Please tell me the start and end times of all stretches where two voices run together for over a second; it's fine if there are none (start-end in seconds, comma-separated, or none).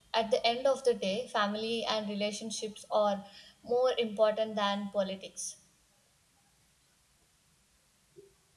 none